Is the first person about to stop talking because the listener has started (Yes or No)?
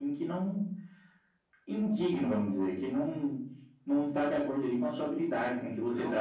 Yes